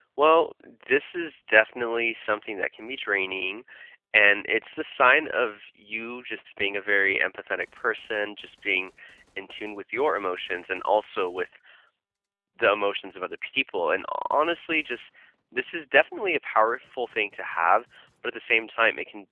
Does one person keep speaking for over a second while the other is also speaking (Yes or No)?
No